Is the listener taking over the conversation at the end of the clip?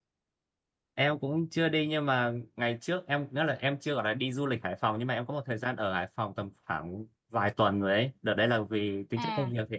No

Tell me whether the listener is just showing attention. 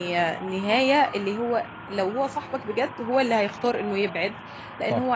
Yes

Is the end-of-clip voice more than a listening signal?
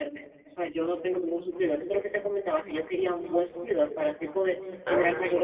No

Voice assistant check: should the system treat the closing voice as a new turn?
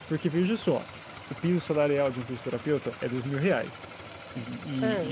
No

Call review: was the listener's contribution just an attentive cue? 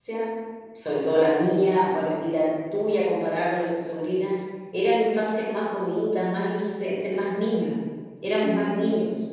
No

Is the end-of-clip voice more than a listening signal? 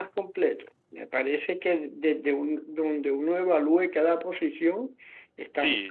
Yes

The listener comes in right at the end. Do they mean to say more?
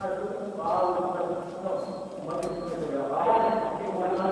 Yes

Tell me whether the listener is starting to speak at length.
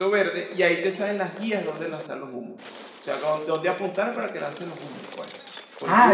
Yes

